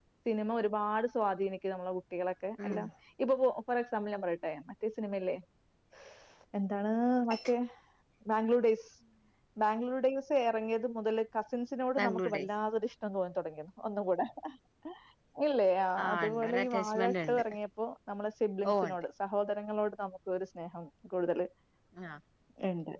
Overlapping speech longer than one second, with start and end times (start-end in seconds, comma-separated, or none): 16.0-17.4